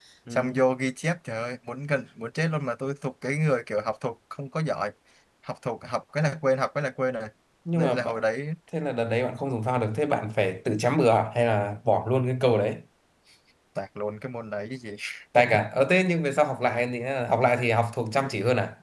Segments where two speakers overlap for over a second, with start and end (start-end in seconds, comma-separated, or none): none